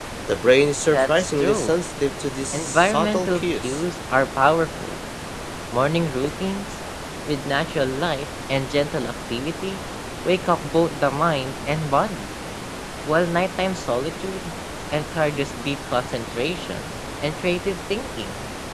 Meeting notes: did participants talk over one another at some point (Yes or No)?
Yes